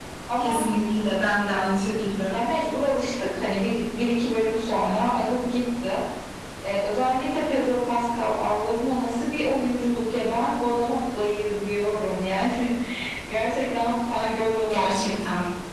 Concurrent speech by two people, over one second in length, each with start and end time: none

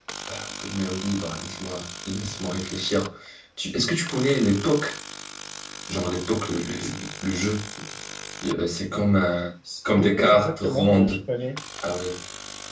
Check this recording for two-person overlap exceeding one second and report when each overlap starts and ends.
9.9-11.2

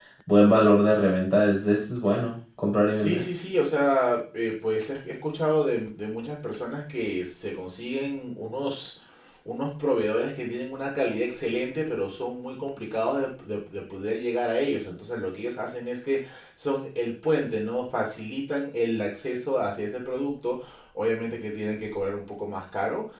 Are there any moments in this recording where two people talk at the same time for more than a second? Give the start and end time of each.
none

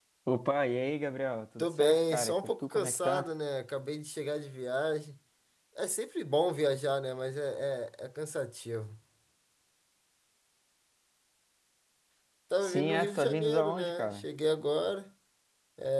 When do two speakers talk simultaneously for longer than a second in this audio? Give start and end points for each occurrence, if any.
1.6-3.3, 12.6-14.2

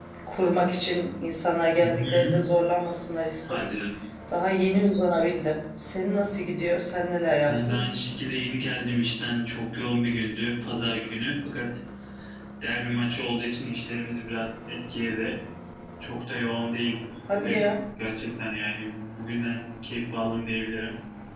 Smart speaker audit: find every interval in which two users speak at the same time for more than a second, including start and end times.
none

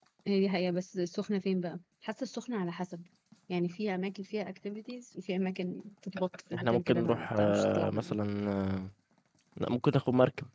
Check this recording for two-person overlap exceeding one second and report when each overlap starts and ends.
6.5-8.2

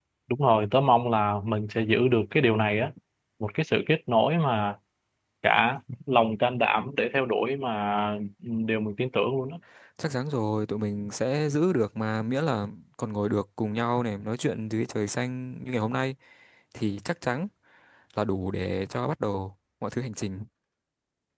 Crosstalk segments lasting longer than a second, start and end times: none

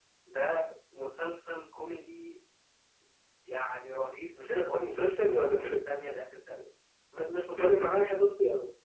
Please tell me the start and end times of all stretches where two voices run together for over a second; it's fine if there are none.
4.4-5.9

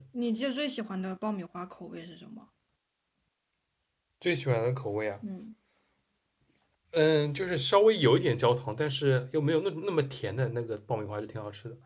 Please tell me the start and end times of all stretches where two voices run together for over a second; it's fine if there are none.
none

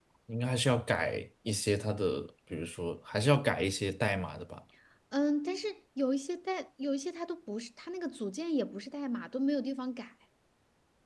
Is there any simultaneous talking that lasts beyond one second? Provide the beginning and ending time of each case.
none

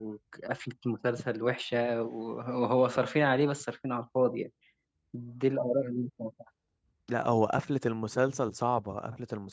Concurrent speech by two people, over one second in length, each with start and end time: none

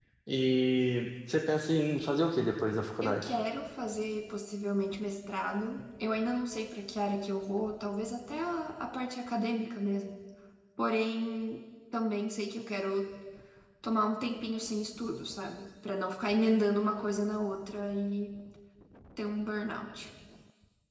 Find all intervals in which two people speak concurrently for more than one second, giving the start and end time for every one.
none

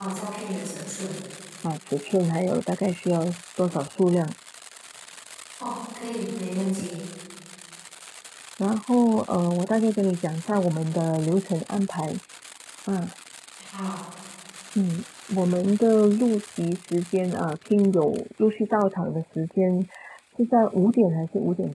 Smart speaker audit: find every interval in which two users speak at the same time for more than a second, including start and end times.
none

